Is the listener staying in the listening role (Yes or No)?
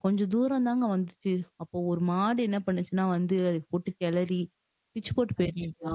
Yes